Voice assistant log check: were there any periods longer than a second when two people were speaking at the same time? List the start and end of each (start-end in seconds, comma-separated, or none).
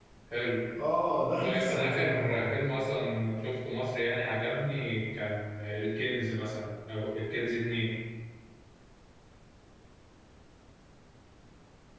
1.4-2.6